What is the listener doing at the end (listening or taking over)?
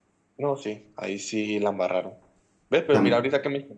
listening